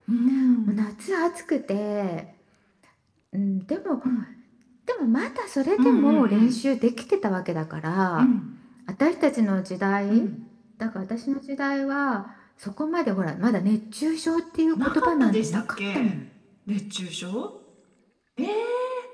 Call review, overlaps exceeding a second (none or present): present